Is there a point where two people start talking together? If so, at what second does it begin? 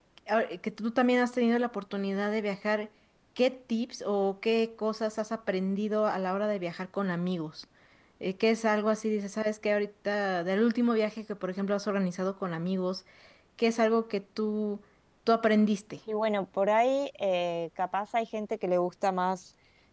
none

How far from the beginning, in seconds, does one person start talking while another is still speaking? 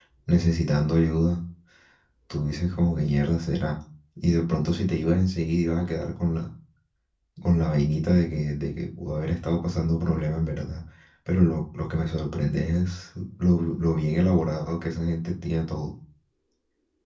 none

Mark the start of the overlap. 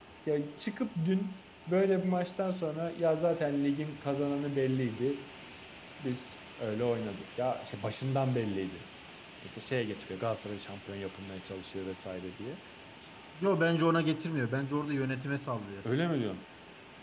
none

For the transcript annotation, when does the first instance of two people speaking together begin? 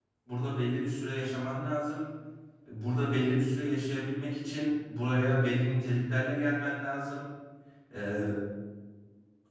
none

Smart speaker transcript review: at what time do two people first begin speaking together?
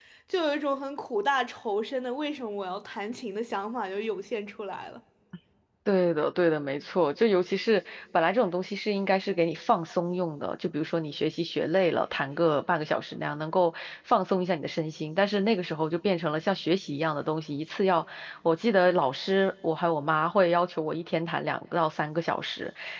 none

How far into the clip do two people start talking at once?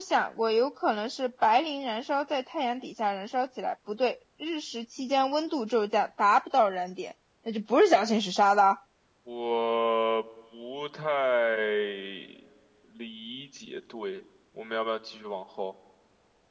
none

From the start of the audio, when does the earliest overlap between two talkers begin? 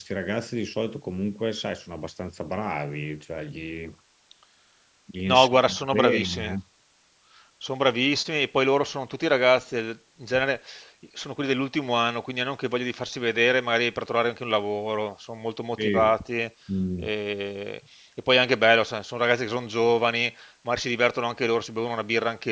5.3 s

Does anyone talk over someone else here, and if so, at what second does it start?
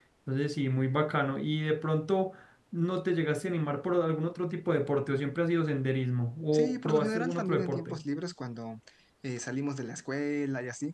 6.5 s

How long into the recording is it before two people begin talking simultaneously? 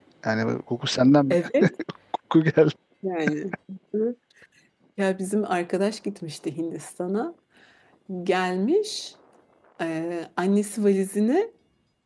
none

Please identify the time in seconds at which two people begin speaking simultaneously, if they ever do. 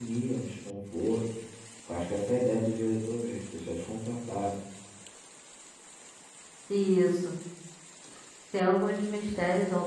none

